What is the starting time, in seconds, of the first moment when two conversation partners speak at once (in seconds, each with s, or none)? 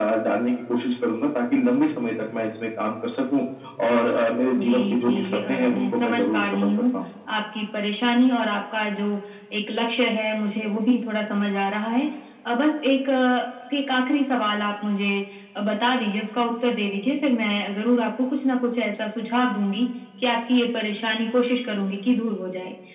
4.6 s